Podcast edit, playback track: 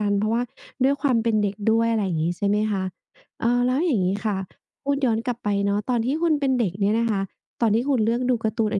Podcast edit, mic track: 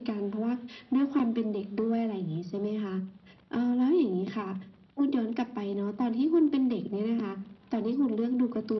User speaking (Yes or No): No